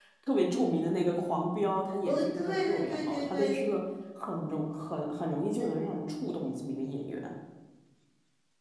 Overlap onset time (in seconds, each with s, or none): 2.0 s